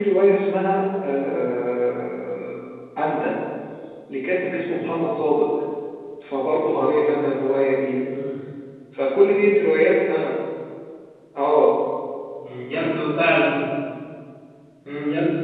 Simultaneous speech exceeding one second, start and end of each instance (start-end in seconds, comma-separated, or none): none